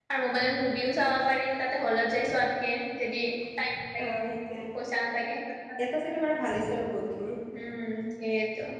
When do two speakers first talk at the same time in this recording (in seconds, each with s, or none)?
none